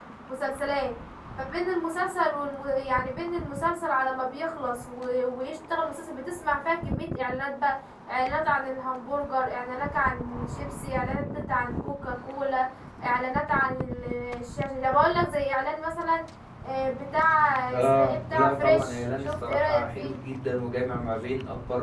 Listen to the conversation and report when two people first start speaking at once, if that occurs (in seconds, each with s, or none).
17.7 s